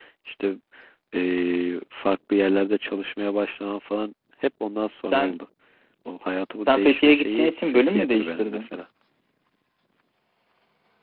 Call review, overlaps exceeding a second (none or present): present